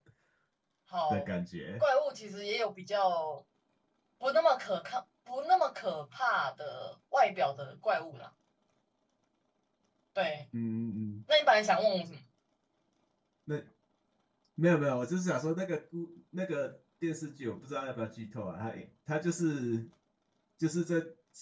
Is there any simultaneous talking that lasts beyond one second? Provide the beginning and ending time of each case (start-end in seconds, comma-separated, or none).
none